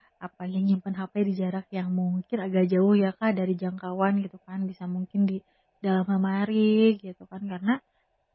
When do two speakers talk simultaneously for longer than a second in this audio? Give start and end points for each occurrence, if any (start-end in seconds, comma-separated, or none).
none